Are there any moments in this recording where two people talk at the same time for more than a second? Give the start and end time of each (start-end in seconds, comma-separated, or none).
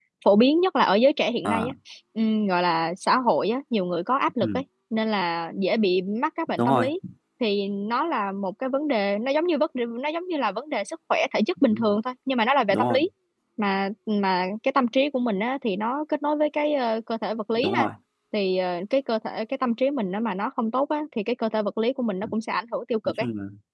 none